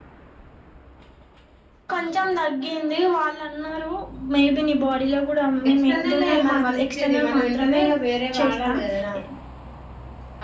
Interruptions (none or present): present